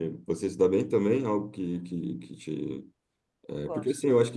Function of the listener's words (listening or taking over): listening